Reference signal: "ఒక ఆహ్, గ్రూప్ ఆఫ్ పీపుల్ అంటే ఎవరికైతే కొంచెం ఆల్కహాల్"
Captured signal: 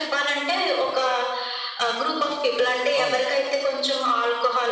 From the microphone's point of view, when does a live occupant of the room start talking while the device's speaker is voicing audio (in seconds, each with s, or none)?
3.0 s